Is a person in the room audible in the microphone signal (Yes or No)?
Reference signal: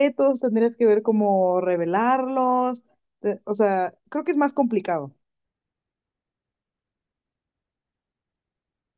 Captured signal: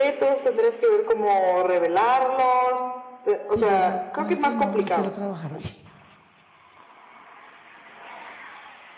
Yes